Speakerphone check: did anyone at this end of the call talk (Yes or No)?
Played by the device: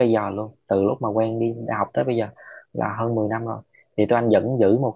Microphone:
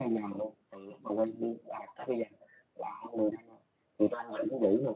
No